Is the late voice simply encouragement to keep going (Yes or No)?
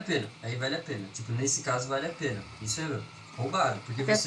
Yes